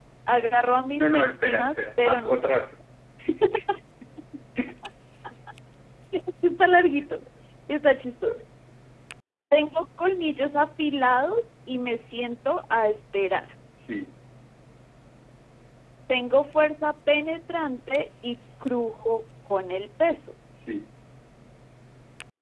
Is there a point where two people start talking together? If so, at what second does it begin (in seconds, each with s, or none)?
1.0 s